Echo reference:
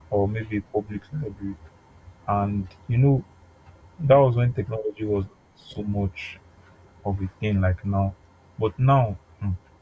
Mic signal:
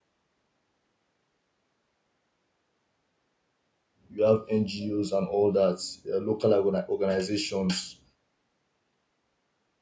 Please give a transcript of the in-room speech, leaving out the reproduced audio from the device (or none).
you have NGOs and all that, uh, local organ- organizations